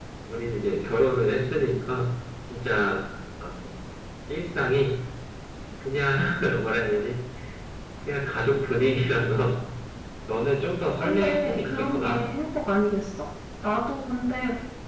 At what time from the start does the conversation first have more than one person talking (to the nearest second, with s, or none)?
11 s